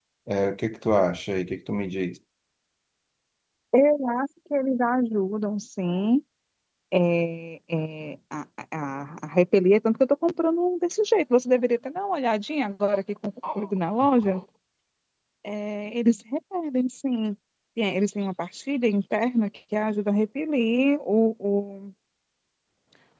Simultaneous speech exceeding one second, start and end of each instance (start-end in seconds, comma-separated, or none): none